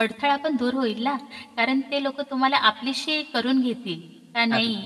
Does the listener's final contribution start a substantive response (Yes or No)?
No